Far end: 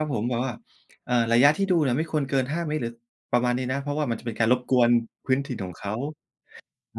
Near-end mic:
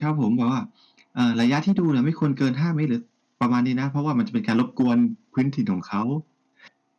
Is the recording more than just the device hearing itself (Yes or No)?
No